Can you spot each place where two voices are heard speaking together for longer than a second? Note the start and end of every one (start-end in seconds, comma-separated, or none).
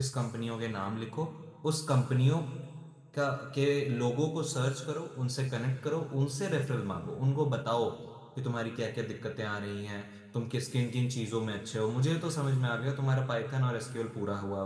none